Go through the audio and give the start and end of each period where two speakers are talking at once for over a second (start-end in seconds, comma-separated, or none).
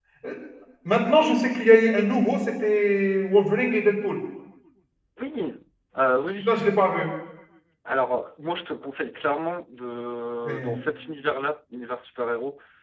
none